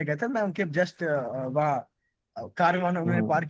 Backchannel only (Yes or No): Yes